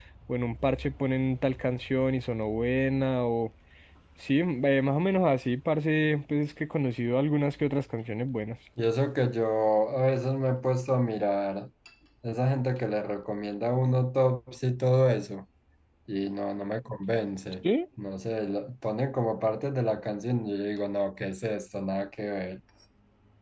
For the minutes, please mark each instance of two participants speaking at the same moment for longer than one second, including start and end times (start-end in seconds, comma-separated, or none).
none